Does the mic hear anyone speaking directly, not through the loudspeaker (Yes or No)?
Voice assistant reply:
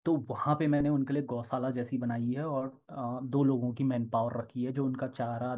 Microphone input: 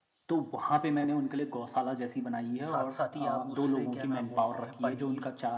Yes